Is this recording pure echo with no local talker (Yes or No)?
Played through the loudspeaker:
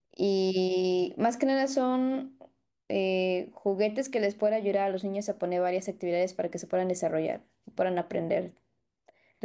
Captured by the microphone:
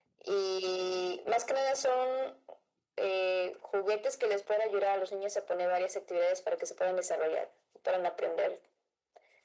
Yes